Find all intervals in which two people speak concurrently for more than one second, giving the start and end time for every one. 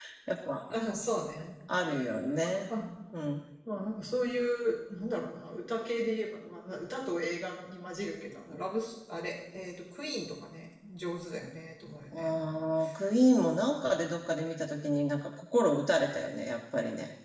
none

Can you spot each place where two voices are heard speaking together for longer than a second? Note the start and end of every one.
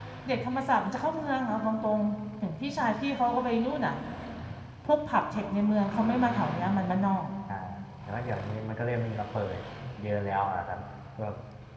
none

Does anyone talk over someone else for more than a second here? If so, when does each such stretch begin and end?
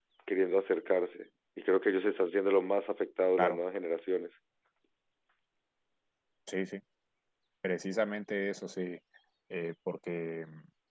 none

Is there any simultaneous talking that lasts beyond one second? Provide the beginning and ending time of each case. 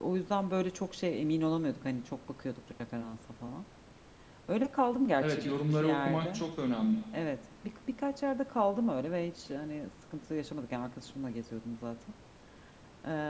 5.2-6.4

